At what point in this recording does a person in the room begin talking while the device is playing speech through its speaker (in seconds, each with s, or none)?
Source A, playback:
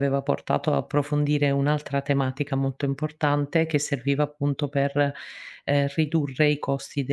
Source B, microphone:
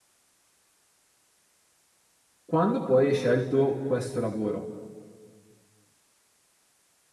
2.4 s